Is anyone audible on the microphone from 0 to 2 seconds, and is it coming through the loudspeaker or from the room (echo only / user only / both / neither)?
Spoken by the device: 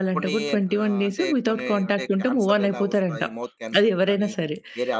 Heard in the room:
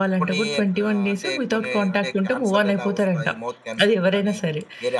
echo only